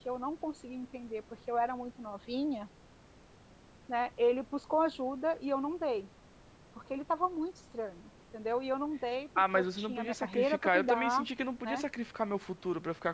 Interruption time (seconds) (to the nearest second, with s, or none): 9 s